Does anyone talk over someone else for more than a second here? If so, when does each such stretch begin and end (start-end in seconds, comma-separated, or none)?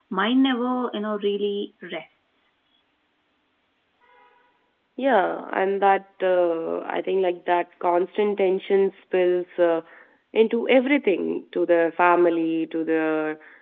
none